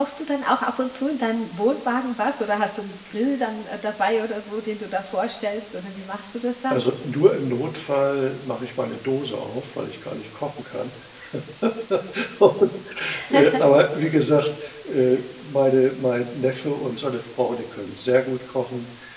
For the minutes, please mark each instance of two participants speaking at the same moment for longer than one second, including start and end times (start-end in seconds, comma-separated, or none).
none